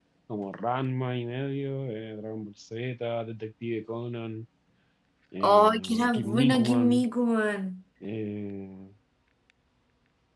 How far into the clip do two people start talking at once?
5.4 s

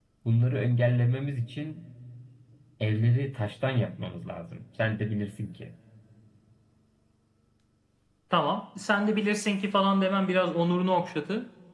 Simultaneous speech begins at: none

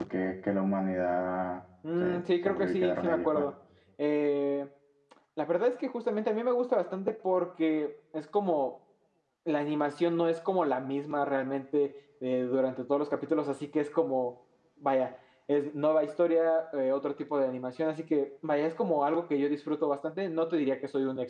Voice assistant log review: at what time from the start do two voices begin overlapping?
1.8 s

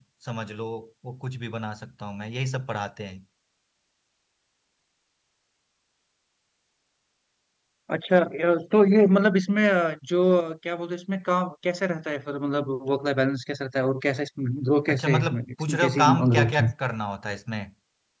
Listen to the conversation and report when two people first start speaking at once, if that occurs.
14.9 s

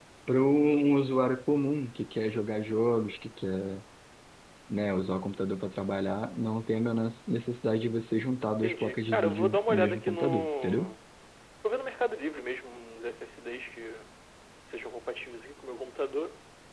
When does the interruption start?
8.6 s

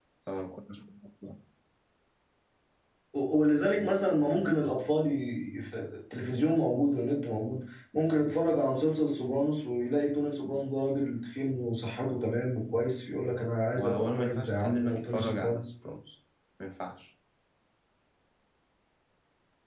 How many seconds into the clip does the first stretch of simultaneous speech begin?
13.7 s

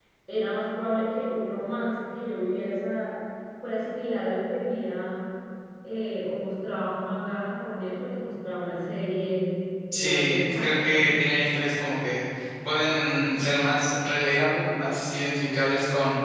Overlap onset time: 9.9 s

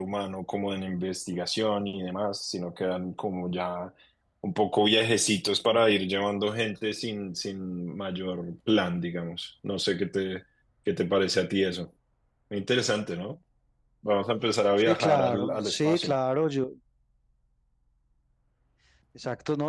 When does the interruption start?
14.8 s

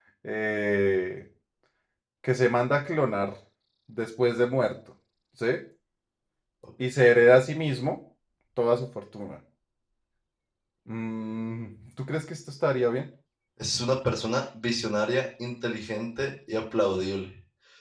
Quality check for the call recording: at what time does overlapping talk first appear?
none

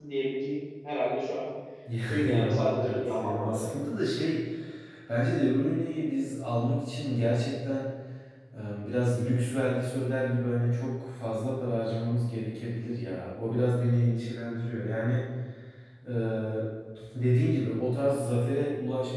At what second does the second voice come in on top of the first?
2.2 s

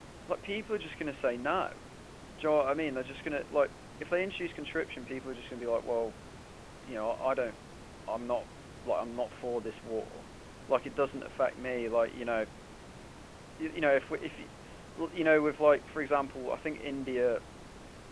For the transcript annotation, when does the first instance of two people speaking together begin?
none

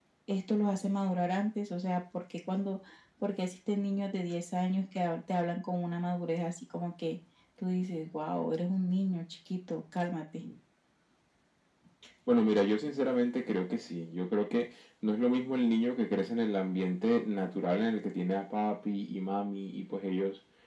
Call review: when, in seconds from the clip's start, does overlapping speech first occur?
none

